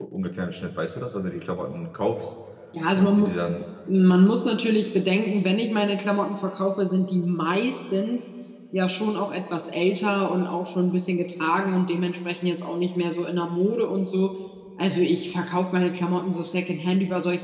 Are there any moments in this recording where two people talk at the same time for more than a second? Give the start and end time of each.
none

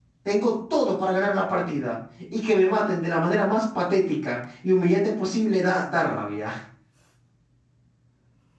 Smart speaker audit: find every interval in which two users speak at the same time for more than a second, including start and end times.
none

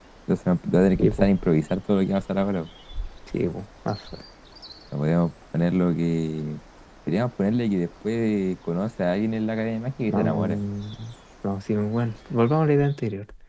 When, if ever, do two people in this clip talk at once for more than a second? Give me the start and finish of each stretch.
none

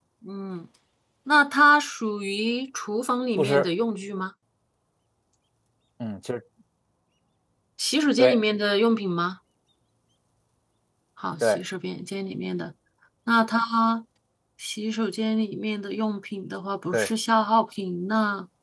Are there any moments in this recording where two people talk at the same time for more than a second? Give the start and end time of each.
none

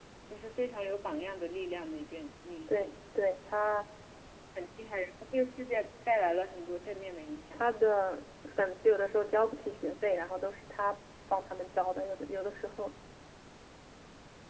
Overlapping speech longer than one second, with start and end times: none

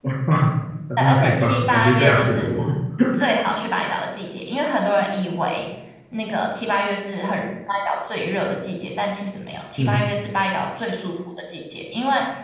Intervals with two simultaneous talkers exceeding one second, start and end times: 1.0-2.5

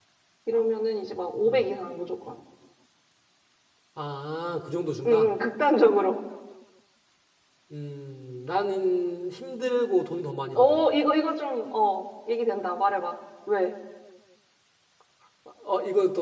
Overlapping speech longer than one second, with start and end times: none

